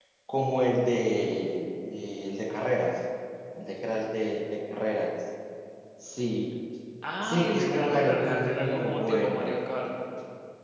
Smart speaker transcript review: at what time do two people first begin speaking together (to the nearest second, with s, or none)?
7 s